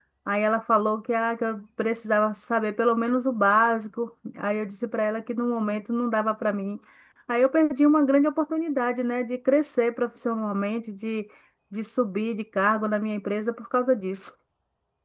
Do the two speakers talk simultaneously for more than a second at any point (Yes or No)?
No